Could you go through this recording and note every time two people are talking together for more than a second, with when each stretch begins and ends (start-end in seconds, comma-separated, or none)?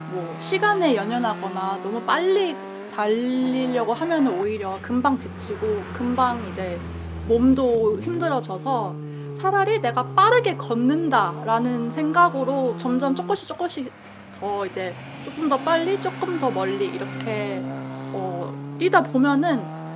none